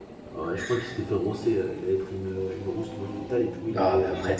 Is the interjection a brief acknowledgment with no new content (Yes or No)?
No